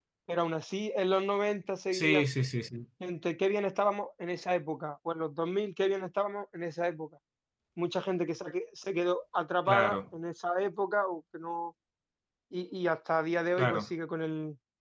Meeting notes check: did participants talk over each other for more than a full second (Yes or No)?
No